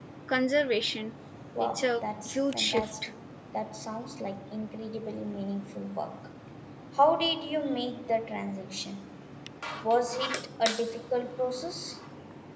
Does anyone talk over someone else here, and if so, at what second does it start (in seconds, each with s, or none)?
1.6 s